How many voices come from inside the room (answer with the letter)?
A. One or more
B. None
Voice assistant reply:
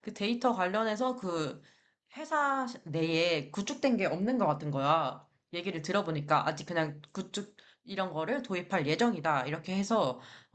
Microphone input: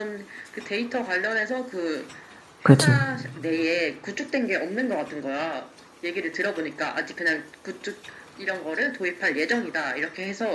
A